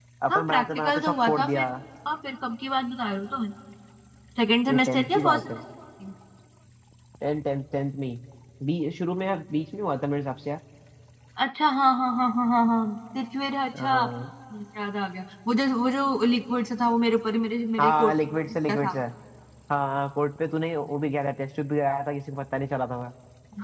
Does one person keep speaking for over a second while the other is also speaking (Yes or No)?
Yes